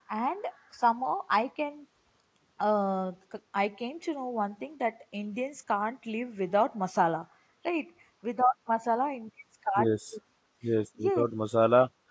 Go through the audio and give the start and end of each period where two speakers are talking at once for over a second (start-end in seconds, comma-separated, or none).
none